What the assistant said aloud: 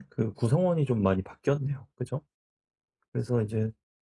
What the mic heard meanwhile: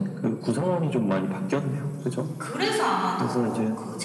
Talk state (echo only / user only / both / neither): both